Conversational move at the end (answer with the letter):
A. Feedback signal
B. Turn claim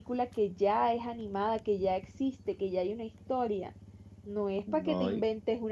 A